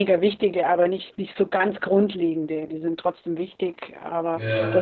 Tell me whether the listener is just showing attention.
Yes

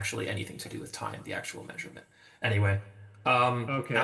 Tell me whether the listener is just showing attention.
No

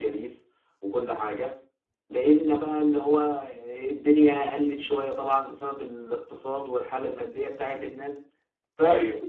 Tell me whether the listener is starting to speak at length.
No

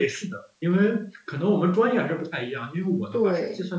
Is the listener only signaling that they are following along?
Yes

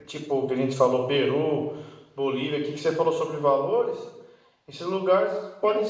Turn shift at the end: No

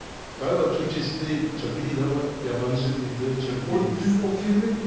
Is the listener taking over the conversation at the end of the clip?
Yes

